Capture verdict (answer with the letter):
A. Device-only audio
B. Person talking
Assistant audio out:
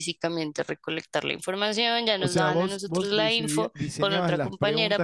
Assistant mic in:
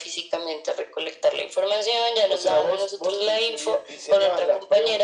A